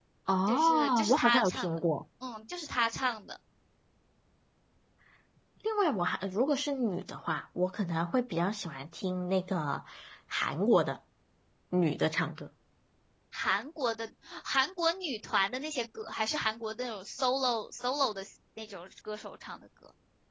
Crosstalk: present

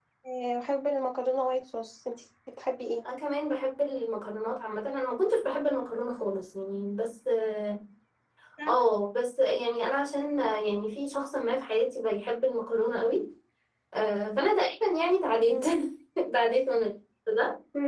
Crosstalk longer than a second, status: none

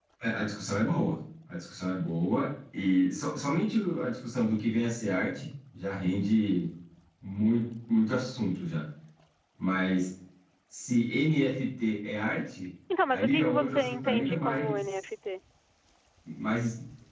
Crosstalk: present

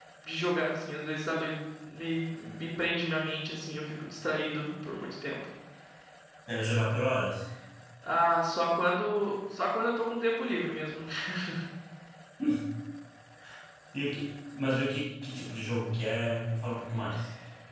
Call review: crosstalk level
none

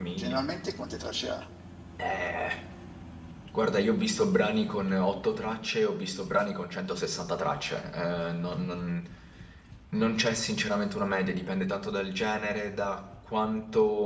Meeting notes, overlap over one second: none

